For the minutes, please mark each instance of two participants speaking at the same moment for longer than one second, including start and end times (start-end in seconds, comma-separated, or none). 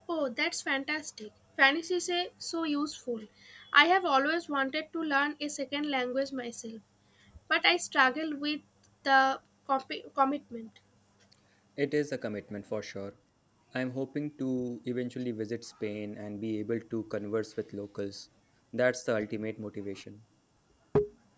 none